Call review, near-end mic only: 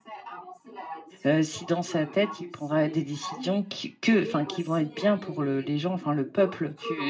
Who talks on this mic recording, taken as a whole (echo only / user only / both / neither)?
both